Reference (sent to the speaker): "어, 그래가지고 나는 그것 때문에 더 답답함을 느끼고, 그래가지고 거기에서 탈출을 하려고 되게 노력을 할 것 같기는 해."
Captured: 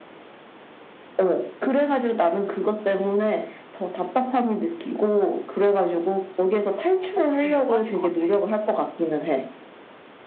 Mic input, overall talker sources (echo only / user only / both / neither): both